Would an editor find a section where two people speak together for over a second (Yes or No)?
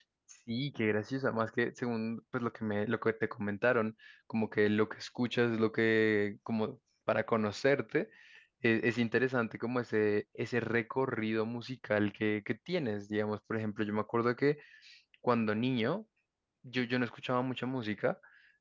No